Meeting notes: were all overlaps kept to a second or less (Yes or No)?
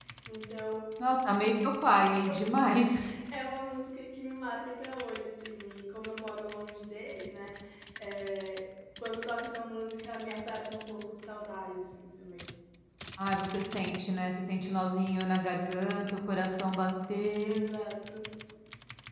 Yes